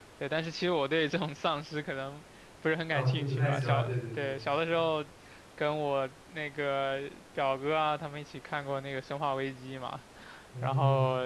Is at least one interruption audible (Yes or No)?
Yes